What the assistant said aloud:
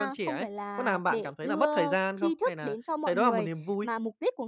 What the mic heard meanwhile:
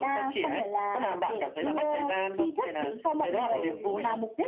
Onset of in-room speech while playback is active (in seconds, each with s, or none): 3.5 s